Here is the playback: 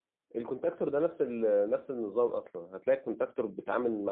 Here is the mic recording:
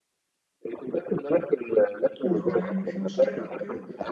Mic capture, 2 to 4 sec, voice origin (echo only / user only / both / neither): both